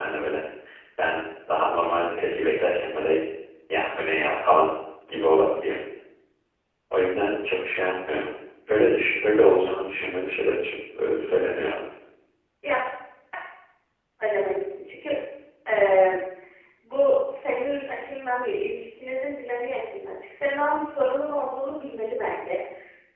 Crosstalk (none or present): none